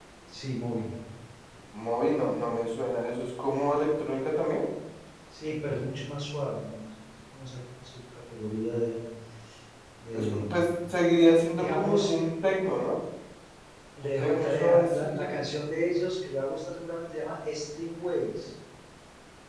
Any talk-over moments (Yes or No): Yes